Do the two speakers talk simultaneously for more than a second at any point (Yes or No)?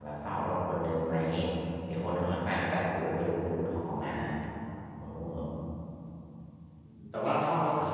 No